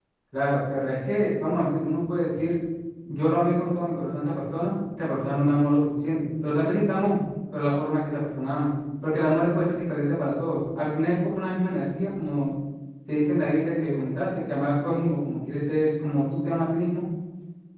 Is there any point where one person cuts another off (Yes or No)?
No